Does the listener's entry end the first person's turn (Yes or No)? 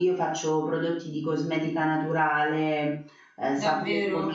Yes